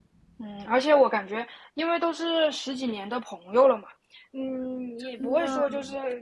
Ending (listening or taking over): listening